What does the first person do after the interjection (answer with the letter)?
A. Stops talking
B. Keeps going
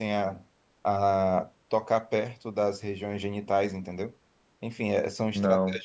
B